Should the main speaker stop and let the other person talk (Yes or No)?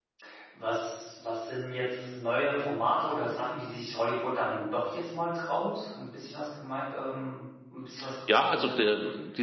Yes